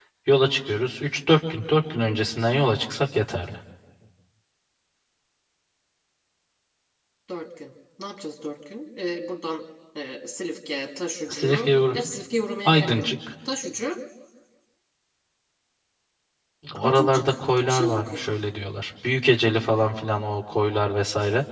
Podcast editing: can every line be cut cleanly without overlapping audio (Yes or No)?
No